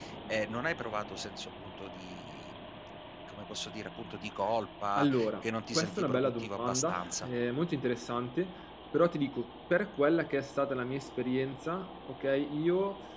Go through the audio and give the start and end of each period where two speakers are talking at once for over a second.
5.0-7.3

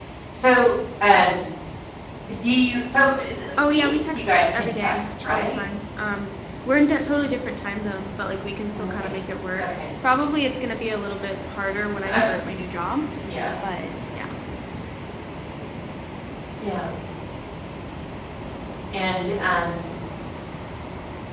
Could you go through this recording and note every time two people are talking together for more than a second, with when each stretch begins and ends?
3.6-5.6

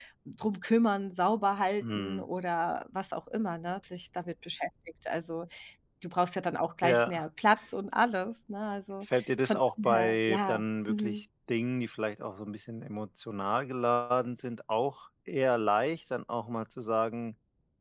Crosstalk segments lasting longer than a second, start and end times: 9.1-11.2

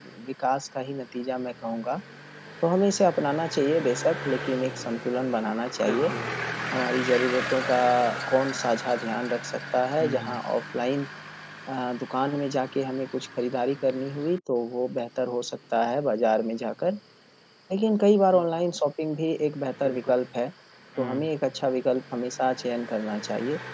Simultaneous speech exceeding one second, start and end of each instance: none

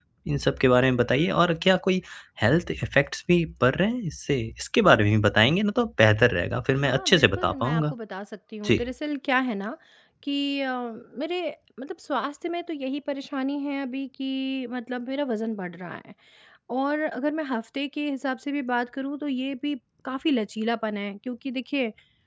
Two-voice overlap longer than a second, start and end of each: 6.7-7.9

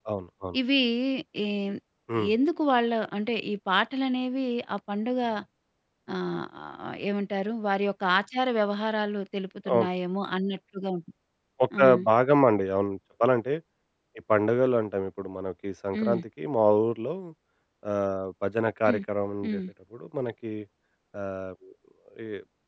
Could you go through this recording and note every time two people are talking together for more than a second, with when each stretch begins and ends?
none

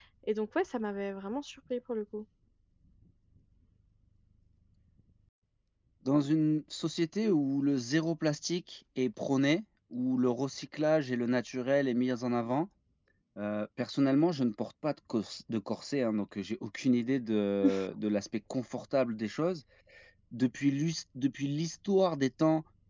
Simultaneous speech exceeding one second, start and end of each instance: none

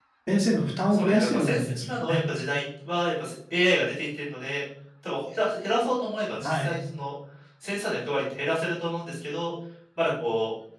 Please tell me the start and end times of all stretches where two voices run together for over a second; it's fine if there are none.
0.9-2.2

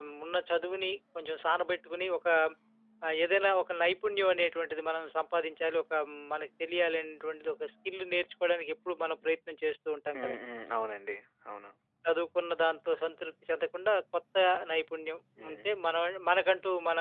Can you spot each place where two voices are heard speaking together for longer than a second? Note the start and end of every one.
none

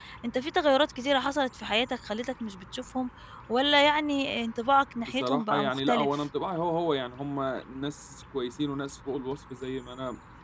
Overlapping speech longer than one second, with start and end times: 5.0-6.2

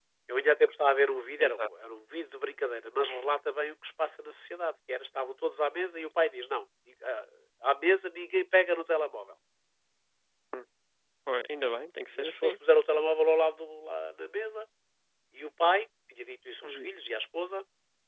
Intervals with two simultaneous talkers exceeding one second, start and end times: none

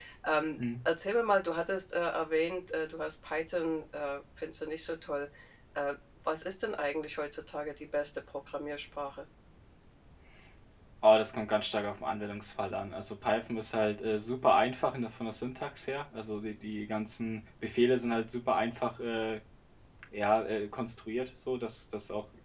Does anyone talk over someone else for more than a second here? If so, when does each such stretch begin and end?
none

